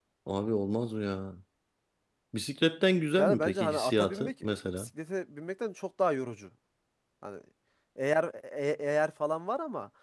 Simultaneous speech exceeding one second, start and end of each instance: 3.2-4.9

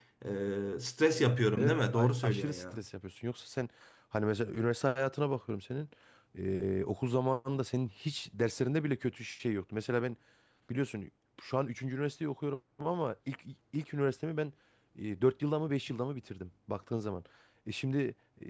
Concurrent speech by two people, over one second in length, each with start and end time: 1.2-2.8

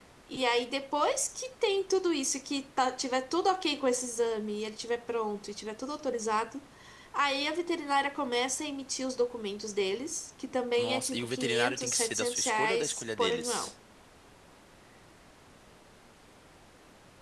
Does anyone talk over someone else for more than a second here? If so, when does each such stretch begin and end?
10.8-13.7

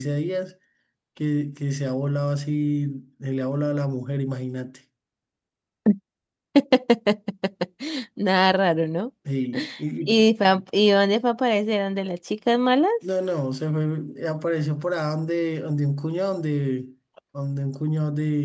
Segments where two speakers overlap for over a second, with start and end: none

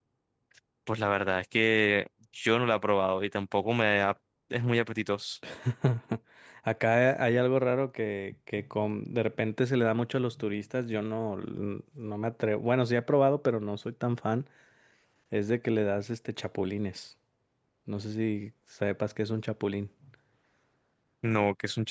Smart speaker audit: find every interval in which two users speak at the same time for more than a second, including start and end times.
none

